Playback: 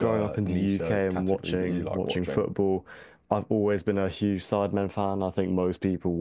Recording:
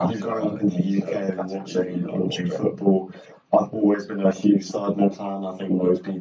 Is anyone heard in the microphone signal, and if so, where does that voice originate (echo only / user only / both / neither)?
echo only